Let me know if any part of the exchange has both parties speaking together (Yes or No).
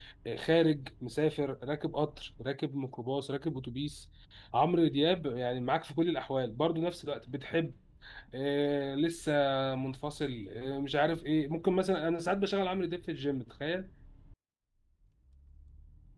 No